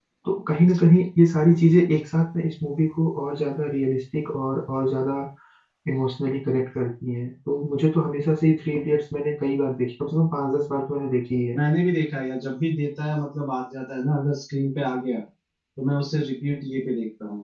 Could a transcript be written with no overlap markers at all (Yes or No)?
Yes